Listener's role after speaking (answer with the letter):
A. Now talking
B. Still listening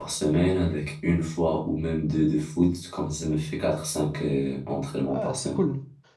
A